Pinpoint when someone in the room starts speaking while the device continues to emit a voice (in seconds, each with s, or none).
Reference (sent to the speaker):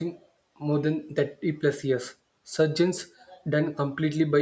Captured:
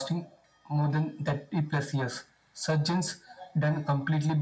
none